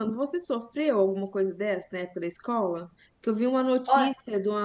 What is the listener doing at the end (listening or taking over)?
listening